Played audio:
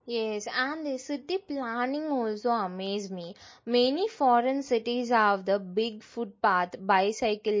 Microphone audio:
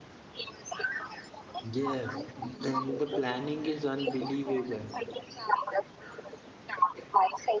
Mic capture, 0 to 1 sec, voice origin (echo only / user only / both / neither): echo only